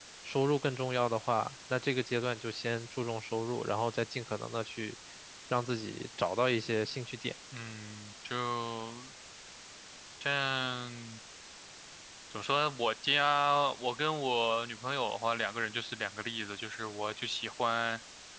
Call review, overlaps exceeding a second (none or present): none